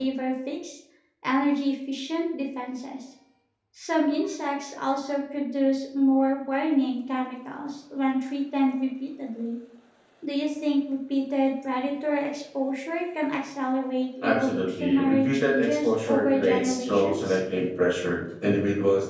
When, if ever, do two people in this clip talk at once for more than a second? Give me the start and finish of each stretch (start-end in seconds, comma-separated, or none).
14.2-17.4